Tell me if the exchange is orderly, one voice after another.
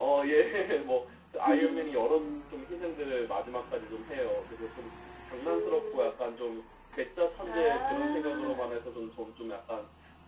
No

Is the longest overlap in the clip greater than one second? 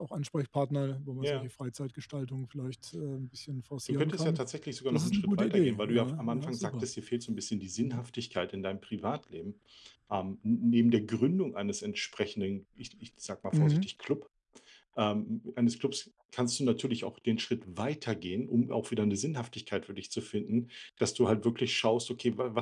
Yes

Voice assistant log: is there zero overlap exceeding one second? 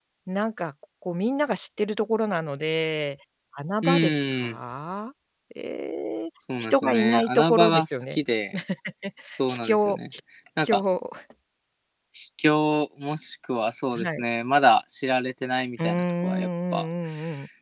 No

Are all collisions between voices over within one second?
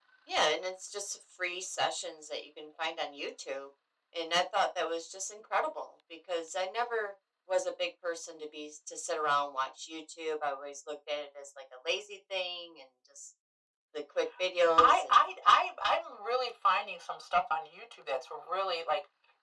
Yes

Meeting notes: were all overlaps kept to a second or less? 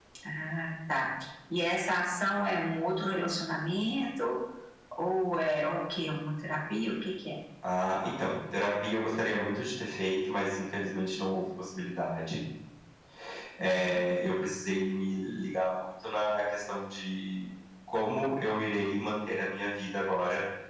Yes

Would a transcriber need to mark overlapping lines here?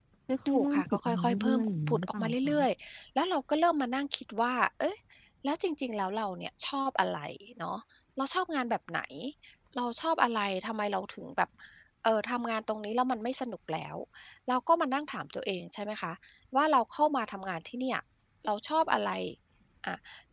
Yes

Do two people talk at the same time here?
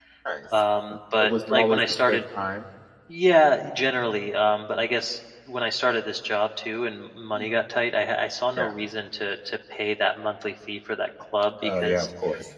Yes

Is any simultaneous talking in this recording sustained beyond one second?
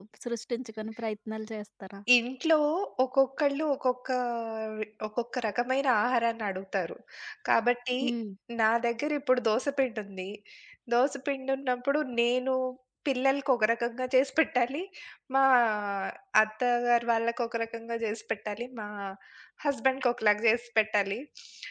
No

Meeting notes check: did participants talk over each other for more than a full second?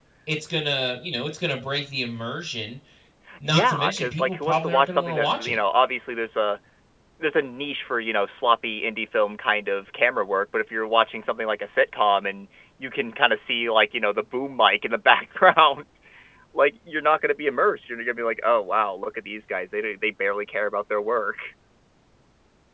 Yes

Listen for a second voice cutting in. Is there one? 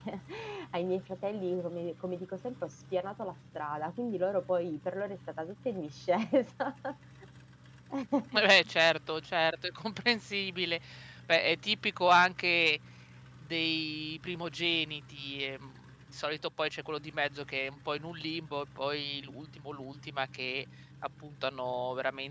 No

